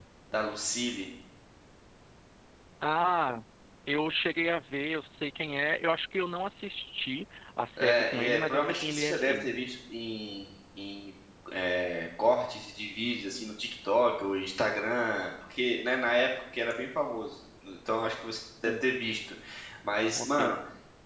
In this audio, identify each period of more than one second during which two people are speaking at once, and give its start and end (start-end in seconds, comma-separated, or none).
7.8-9.4